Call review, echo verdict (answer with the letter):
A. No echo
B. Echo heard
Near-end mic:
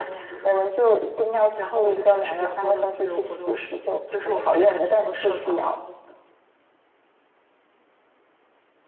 B